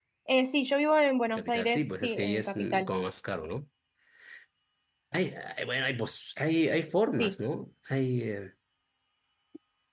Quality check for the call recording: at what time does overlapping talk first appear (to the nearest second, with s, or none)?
1 s